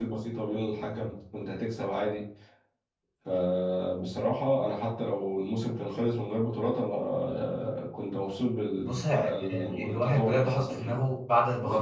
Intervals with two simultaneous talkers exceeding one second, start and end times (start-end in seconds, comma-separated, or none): 8.8-11.0